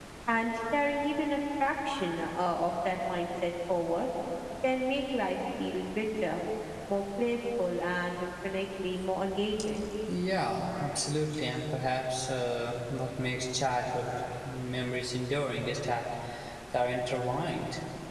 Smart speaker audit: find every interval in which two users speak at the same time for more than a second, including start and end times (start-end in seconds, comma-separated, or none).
none